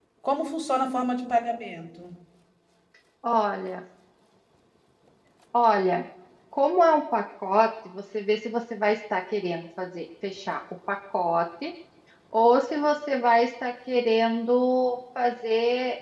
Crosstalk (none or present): none